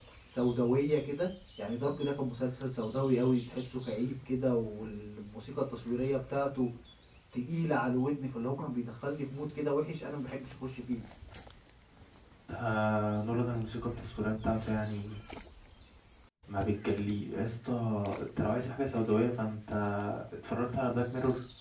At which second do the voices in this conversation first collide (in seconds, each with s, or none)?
none